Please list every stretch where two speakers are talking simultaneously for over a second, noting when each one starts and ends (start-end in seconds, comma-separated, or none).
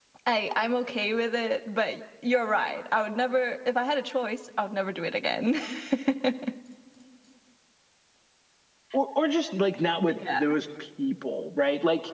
none